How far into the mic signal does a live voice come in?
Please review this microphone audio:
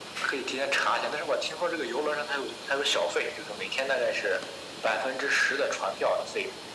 none

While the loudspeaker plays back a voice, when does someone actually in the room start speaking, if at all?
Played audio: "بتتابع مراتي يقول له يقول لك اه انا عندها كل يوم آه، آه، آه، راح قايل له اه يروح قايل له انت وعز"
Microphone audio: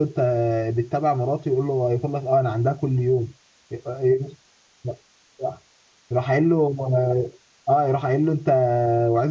none

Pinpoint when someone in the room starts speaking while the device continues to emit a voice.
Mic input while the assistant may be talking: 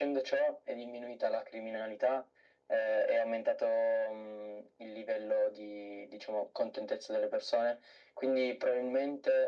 none

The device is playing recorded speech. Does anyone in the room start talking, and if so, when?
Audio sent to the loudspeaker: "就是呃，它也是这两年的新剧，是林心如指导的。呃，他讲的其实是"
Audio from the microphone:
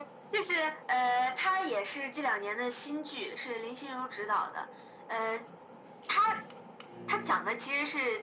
none

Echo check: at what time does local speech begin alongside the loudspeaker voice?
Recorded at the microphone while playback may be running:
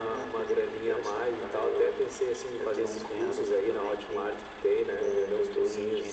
none

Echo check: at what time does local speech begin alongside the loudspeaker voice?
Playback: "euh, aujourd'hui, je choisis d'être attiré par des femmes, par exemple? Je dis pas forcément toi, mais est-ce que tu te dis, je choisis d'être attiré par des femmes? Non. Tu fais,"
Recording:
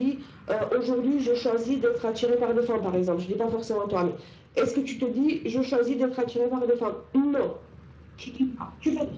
none

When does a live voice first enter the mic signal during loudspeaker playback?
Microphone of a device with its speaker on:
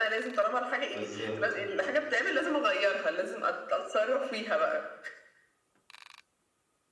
0.9 s

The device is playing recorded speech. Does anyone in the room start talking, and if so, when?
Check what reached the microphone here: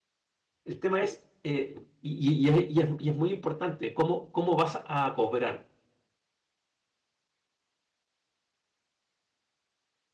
0.6 s

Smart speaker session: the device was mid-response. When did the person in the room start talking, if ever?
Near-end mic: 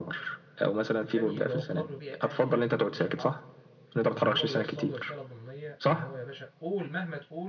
1.1 s

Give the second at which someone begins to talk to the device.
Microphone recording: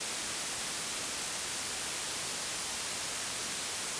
none

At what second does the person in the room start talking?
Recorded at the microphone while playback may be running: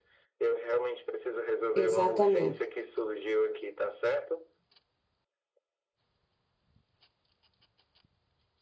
1.7 s

